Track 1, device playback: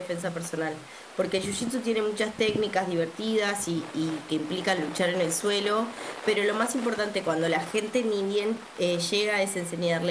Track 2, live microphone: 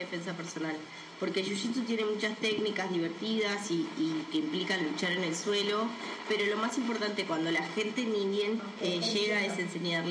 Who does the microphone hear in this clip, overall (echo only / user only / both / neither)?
both